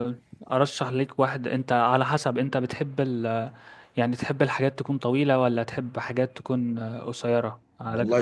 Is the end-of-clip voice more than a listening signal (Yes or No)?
Yes